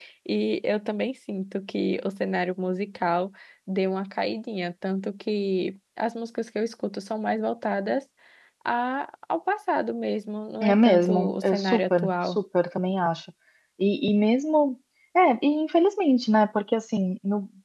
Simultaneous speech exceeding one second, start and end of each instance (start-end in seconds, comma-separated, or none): 10.6-12.4